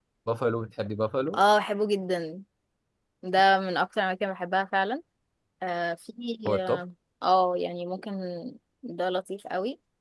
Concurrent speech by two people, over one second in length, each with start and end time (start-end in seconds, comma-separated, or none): none